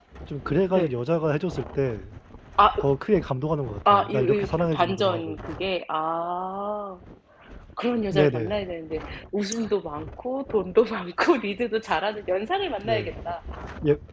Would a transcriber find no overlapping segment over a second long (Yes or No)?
No